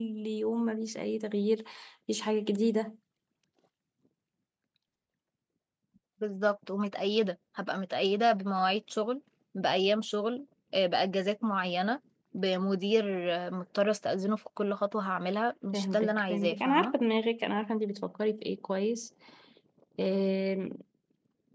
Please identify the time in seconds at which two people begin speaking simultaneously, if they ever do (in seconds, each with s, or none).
15.7 s